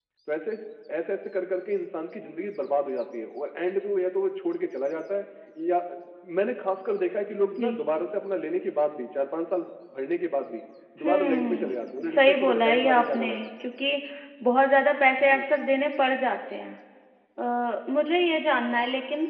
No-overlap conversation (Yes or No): No